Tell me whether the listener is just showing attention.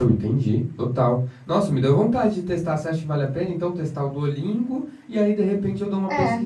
Yes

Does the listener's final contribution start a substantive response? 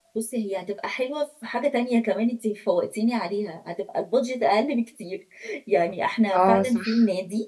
No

